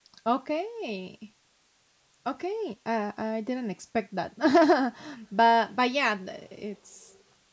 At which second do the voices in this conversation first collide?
none

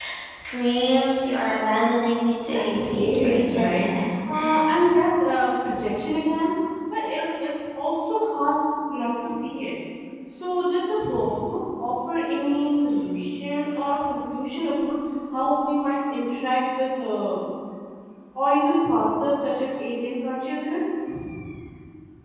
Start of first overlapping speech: 2.5 s

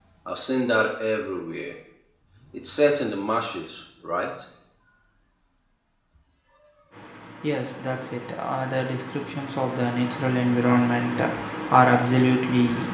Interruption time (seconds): none

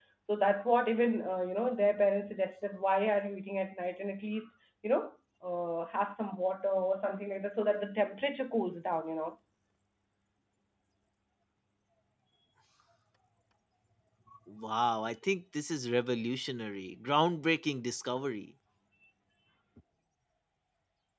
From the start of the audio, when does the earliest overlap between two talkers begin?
none

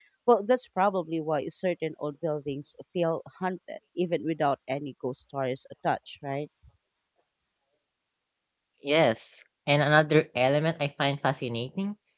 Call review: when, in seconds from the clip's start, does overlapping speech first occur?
none

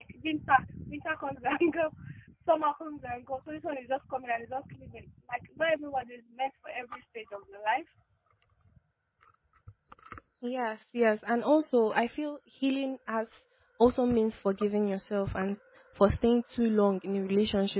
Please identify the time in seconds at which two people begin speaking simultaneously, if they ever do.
none

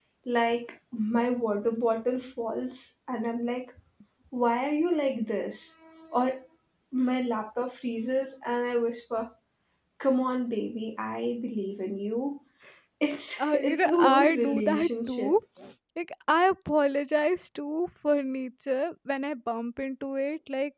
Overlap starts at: 13.4 s

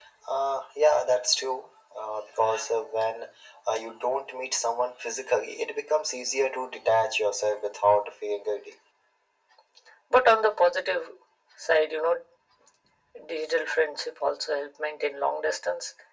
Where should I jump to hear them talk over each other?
none

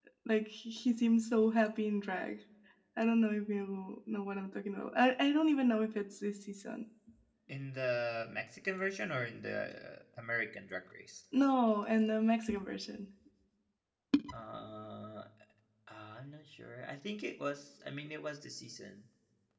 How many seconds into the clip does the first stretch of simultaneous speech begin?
none

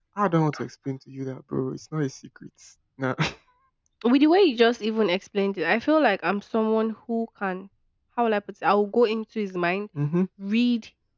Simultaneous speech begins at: none

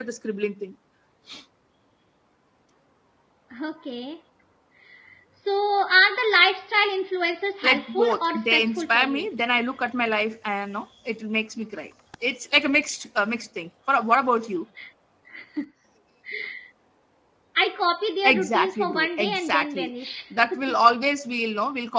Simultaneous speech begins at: 7.6 s

